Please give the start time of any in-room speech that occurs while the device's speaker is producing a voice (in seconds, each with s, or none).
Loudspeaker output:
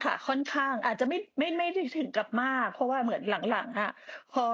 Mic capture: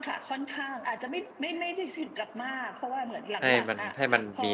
3.4 s